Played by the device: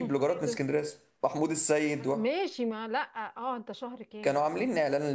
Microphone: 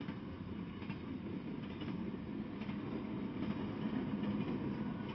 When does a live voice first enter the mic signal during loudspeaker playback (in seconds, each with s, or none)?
none